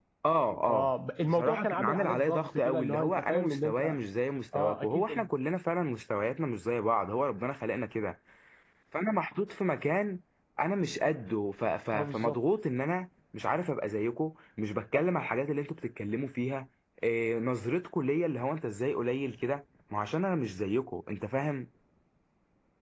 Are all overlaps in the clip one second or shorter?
No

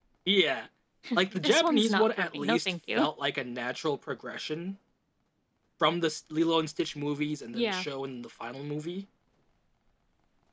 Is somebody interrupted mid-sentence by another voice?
Yes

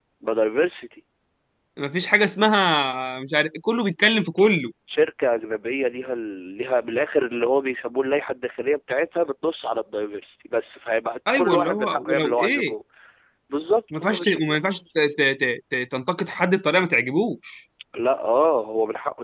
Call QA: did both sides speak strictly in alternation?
No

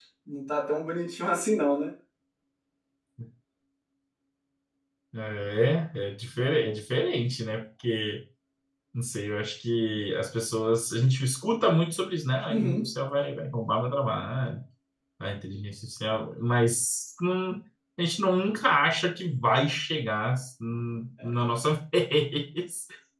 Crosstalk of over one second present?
No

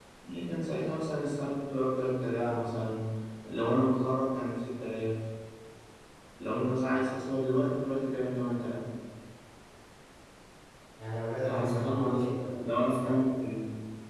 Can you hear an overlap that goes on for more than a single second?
Yes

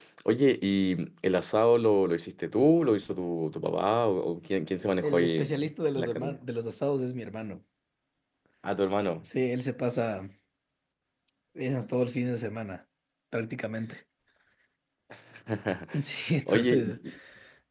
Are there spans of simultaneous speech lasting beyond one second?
Yes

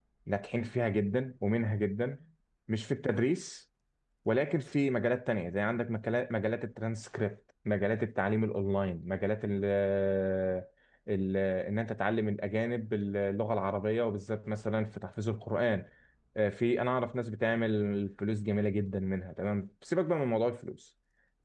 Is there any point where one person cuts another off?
No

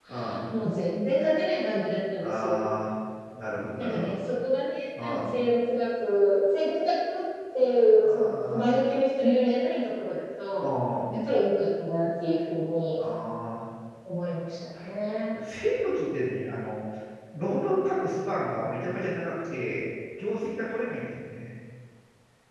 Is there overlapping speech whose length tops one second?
No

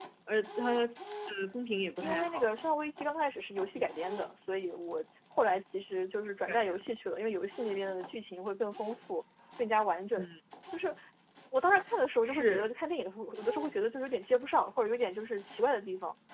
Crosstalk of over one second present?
No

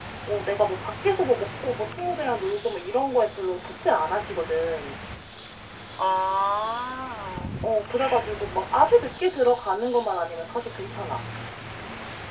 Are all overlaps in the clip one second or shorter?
Yes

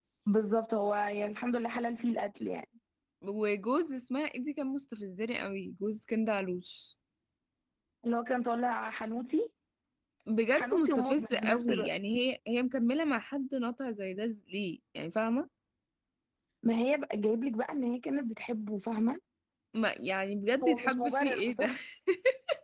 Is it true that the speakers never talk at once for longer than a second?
No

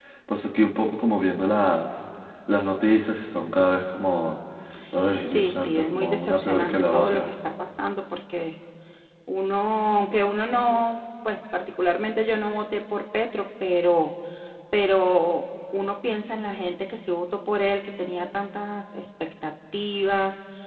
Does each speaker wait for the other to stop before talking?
No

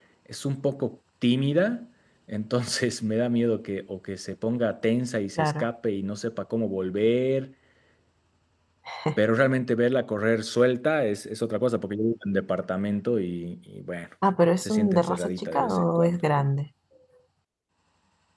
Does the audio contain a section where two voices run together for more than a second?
Yes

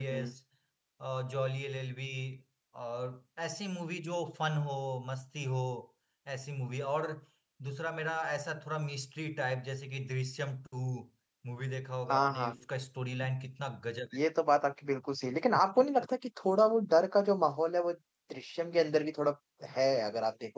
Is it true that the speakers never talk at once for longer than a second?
Yes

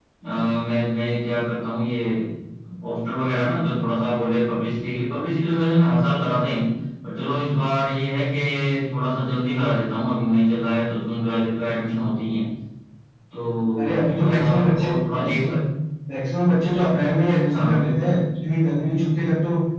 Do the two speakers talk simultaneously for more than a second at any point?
Yes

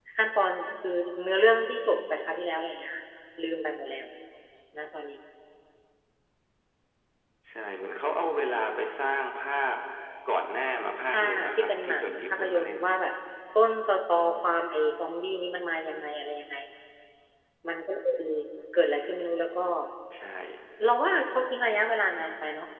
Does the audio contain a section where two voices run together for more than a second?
Yes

